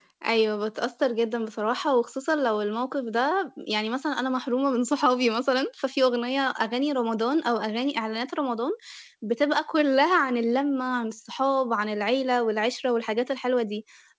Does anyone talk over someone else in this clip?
No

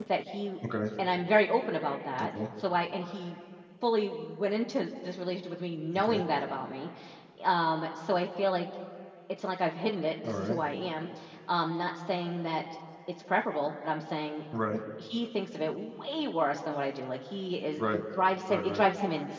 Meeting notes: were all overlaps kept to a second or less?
Yes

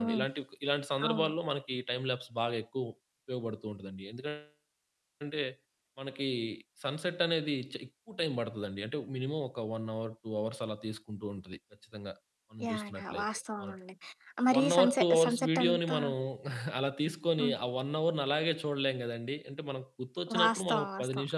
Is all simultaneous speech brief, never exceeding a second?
No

